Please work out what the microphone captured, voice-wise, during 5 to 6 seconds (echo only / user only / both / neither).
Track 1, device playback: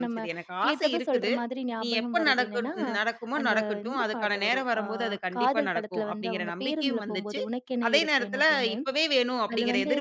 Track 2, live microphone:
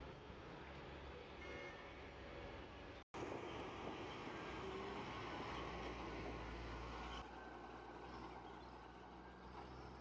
neither